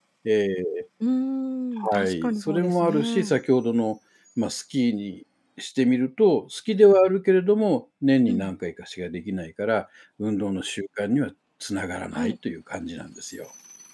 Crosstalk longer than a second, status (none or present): present